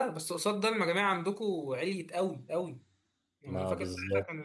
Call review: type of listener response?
listening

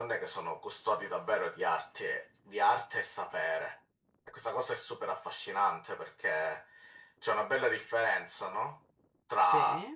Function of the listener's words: listening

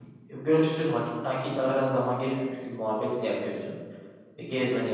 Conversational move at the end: listening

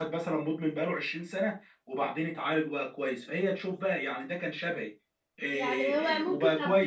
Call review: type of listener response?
taking over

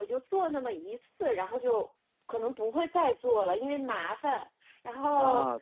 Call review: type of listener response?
listening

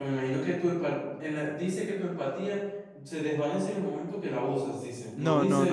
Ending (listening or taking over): taking over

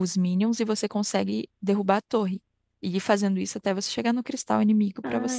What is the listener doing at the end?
taking over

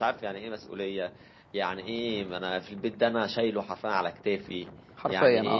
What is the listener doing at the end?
listening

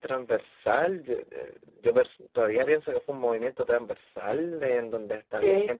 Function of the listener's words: listening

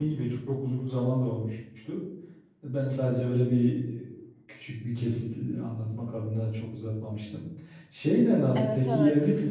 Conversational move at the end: listening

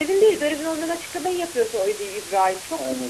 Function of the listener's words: taking over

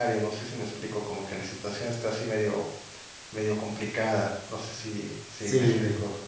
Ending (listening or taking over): taking over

